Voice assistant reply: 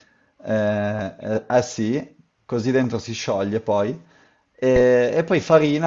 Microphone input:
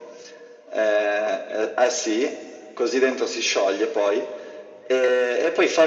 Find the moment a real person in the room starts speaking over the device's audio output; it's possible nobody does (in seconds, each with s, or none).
none